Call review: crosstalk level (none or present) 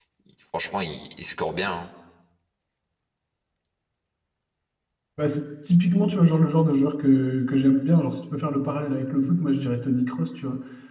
none